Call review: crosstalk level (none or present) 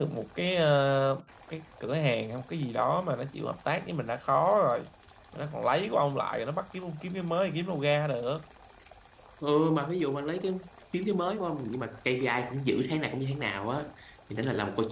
none